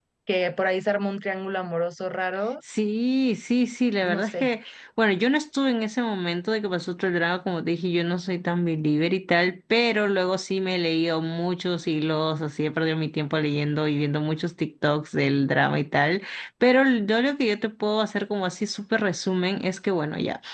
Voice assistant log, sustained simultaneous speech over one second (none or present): none